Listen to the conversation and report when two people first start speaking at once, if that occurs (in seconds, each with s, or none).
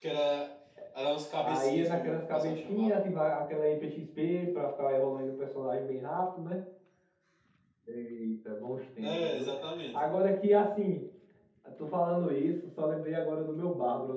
1.4 s